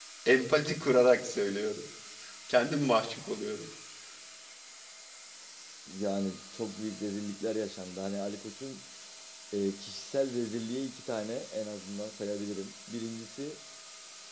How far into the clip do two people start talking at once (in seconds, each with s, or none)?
none